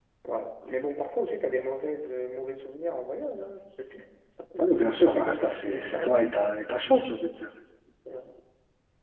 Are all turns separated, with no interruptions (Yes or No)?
No